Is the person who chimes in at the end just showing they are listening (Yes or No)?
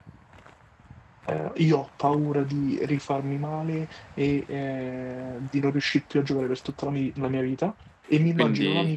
Yes